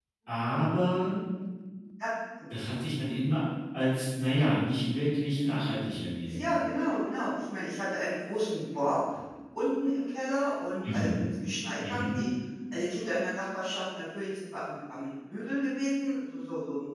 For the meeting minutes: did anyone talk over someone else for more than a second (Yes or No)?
No